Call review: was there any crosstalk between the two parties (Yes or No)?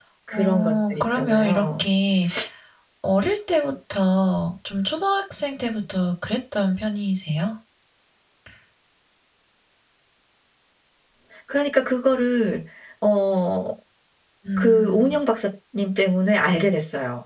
Yes